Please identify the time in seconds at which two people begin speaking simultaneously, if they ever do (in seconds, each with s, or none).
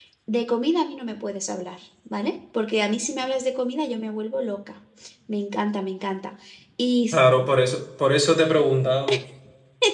none